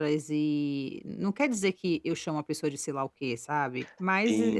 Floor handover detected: Yes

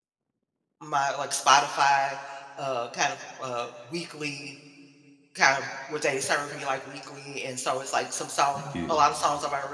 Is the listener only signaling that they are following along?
Yes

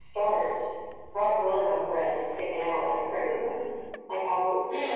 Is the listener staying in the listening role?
No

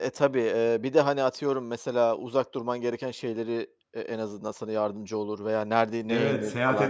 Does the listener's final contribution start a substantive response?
Yes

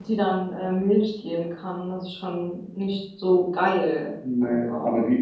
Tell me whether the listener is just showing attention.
No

